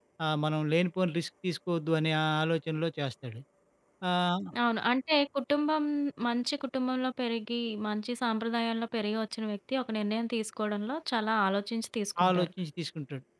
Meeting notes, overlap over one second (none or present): none